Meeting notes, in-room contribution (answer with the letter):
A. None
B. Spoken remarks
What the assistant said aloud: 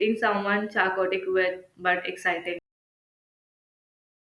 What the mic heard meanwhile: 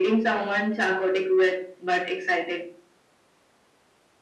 A